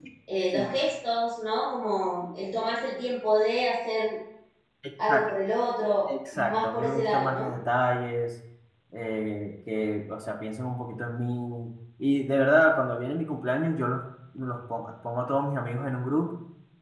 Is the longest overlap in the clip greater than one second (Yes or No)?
Yes